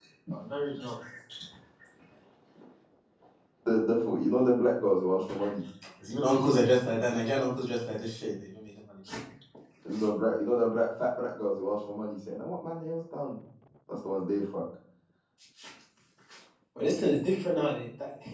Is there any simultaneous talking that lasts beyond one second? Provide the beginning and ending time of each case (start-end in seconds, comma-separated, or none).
none